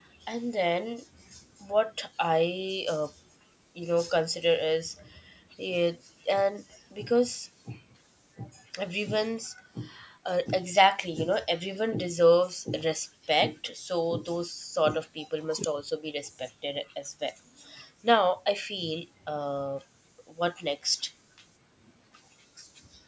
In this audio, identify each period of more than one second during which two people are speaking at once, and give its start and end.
none

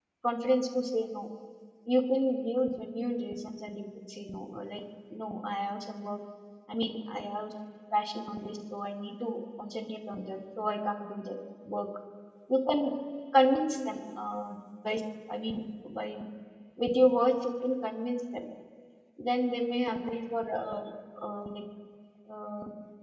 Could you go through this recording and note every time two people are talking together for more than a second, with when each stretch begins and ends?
none

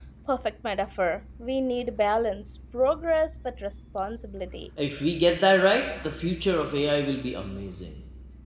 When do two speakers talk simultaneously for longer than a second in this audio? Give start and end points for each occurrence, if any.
none

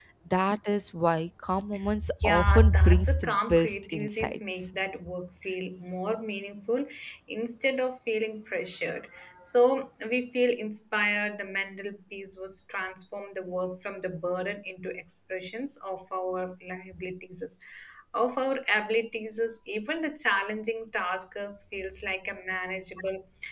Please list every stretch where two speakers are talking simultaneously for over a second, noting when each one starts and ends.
2.2-4.7

